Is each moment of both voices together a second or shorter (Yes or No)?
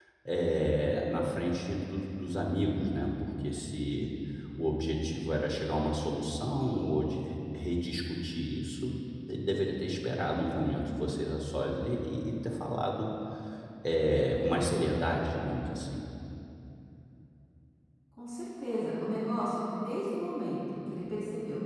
Yes